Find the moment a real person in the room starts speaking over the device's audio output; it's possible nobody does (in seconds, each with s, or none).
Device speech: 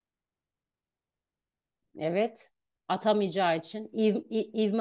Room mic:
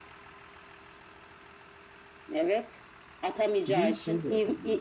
3.6 s